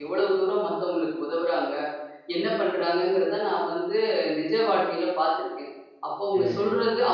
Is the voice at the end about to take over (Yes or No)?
No